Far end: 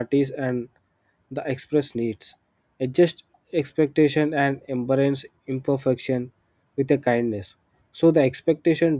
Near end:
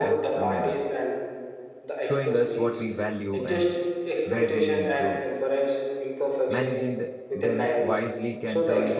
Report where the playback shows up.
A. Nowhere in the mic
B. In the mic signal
B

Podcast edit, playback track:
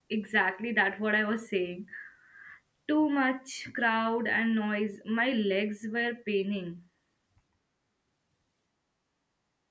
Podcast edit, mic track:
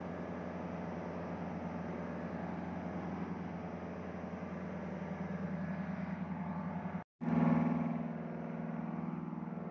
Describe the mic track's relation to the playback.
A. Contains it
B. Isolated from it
B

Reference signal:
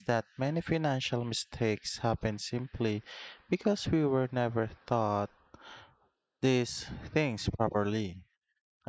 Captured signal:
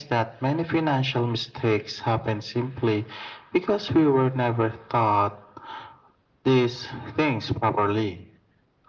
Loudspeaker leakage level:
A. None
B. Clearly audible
B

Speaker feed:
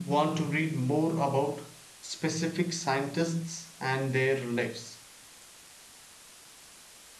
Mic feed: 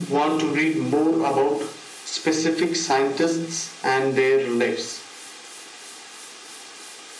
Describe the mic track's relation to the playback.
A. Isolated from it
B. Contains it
B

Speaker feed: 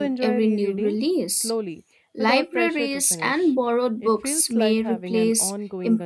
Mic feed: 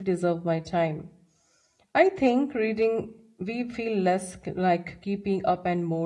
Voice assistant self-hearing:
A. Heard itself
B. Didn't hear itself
B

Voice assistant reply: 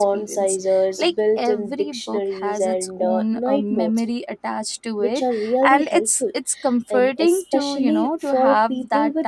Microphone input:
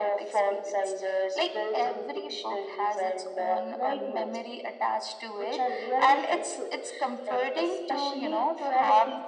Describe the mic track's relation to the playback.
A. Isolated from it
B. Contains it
B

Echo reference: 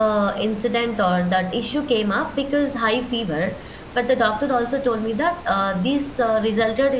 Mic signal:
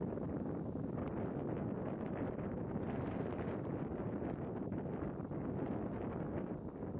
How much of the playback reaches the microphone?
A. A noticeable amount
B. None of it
B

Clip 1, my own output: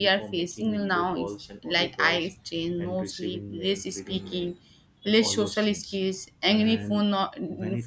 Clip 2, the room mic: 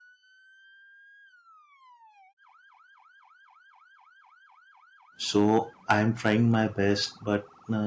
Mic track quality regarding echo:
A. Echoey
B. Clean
B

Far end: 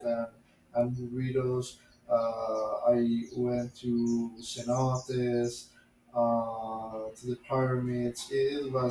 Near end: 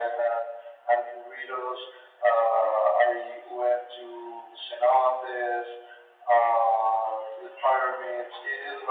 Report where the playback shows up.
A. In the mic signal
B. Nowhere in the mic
A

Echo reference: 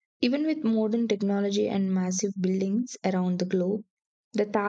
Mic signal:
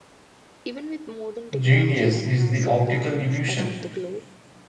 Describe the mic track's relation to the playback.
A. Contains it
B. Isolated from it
A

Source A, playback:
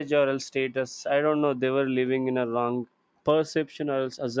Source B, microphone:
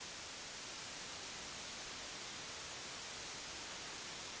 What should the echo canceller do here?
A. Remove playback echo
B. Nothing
B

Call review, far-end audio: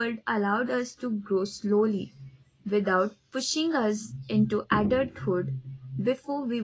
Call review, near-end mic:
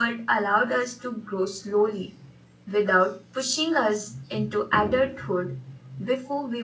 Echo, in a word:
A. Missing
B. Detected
B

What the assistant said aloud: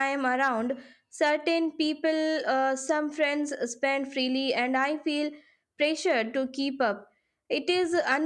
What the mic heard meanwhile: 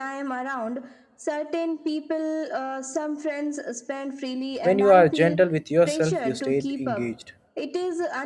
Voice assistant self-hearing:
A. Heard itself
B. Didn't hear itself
A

